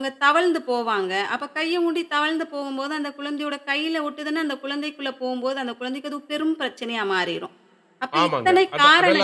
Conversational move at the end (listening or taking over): taking over